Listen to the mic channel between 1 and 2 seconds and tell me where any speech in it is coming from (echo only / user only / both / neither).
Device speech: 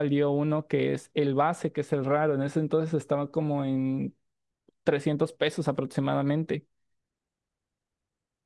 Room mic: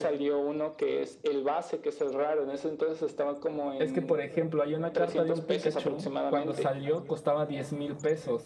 echo only